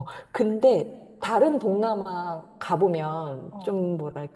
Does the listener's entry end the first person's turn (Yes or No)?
No